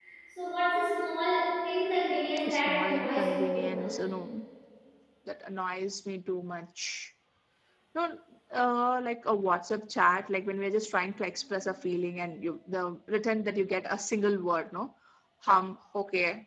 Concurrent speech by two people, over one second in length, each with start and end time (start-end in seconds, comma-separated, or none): 2.5-3.9